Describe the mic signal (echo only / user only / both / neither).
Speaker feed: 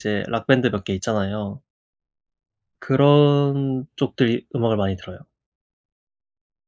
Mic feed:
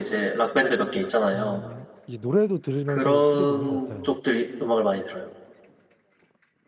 both